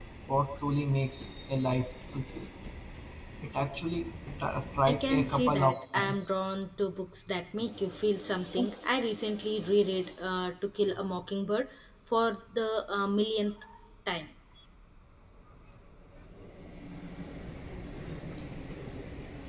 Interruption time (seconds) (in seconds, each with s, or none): 4.9 s